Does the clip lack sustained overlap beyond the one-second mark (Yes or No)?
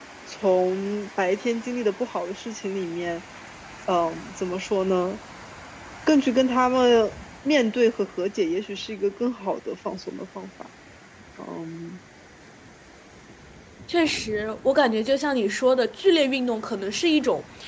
Yes